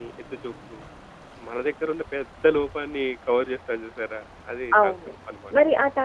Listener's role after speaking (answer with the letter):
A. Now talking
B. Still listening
A